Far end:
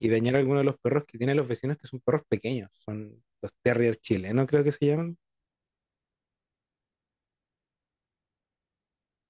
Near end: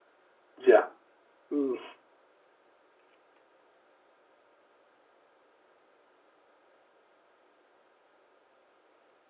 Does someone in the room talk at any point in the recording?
Yes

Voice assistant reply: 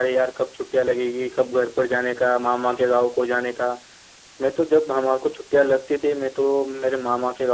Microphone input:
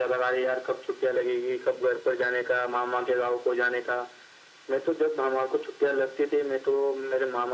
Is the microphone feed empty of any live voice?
Yes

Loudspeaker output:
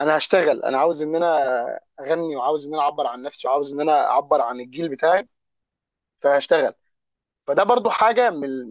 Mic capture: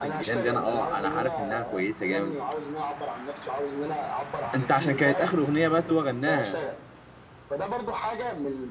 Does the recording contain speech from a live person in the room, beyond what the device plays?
Yes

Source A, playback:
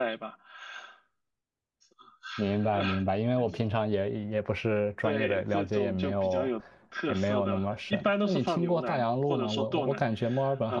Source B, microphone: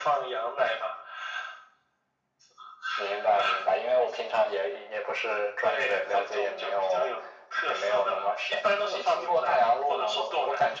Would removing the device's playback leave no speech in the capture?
Yes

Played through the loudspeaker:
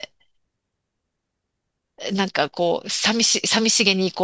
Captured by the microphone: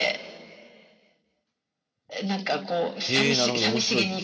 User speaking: Yes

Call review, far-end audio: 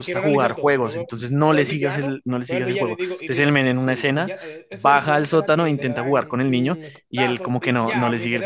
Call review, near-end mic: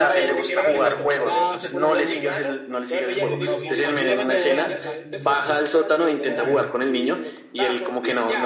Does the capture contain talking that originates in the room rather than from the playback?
Yes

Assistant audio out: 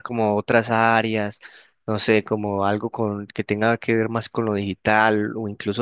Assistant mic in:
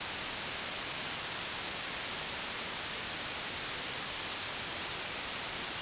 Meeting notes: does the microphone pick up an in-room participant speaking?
No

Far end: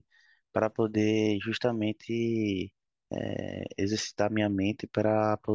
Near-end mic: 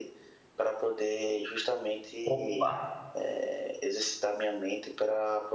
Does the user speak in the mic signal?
Yes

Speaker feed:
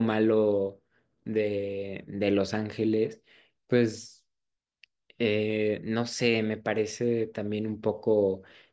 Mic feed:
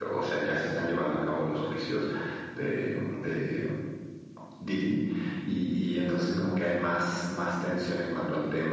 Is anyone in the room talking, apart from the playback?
Yes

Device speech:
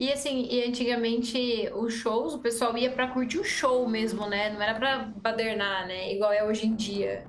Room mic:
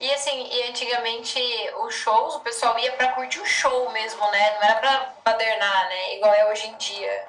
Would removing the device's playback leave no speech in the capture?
Yes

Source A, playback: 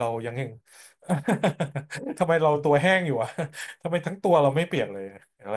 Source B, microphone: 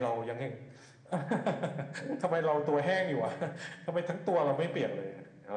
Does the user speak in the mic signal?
No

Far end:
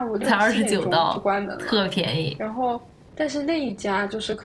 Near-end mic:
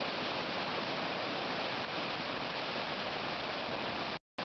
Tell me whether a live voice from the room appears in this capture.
No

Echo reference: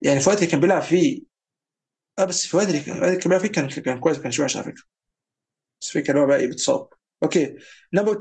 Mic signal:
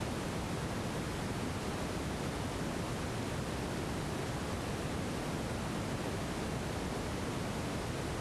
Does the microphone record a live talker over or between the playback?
No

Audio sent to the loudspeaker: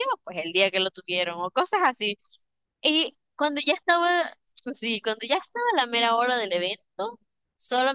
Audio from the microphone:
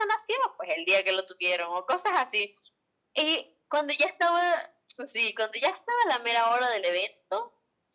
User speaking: No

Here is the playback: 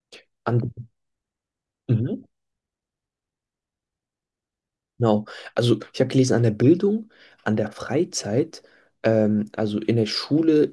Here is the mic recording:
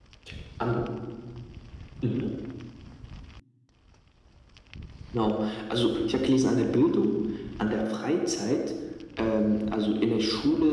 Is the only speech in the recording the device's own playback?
Yes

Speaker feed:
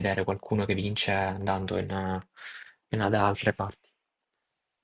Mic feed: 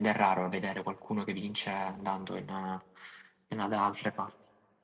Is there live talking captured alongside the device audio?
No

